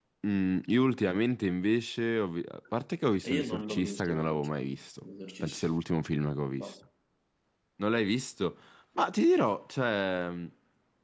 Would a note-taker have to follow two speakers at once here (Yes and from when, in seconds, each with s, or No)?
Yes, from 3.2 s